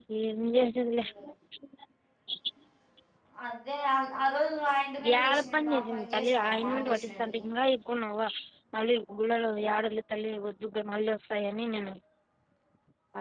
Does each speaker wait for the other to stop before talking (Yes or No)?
No